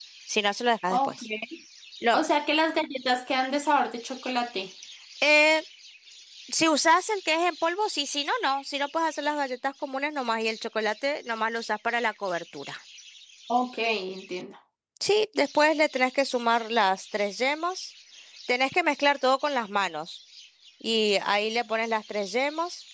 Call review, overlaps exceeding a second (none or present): none